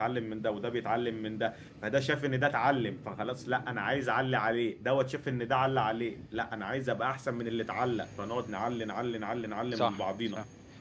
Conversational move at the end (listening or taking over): taking over